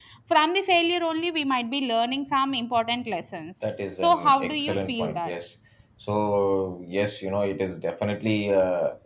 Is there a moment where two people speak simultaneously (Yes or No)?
Yes